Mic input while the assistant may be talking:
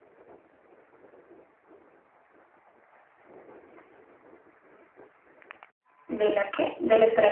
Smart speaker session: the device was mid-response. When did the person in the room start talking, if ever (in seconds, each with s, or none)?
6.1 s